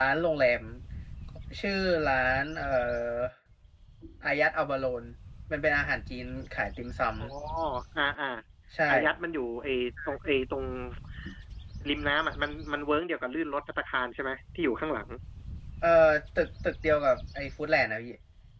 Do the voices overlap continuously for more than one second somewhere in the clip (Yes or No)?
No